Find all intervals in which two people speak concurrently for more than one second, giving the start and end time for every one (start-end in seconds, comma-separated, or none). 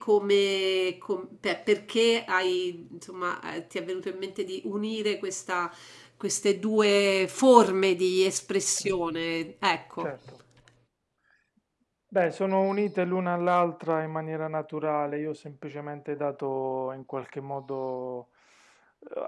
none